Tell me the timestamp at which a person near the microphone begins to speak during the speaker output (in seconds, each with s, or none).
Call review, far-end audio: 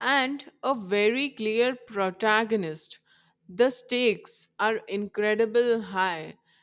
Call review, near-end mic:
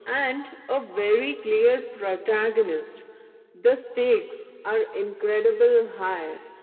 none